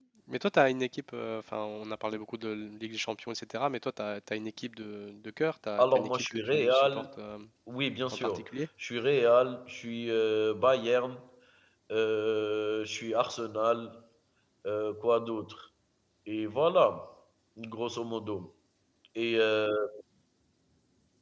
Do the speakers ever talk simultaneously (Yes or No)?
Yes